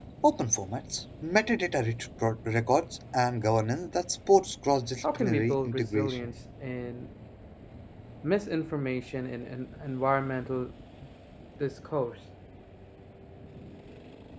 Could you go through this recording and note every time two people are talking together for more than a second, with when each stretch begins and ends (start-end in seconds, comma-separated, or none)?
5.0-6.3